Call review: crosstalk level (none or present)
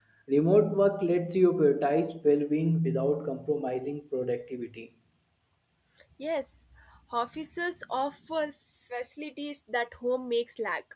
none